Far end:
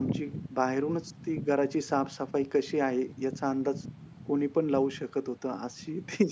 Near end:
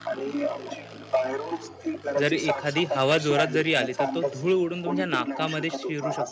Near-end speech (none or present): present